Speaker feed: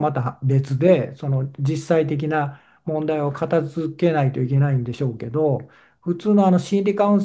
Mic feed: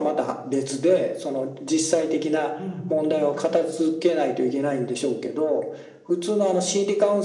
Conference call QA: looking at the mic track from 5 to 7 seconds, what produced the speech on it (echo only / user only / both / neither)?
echo only